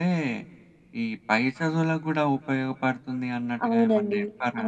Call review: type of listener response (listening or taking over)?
taking over